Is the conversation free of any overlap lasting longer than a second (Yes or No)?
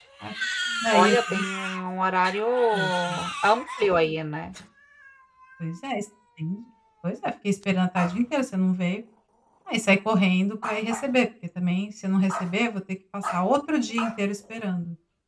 Yes